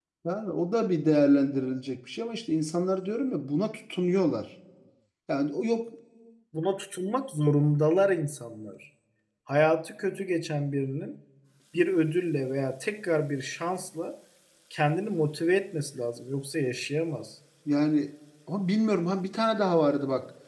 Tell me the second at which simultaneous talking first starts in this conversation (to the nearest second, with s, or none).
none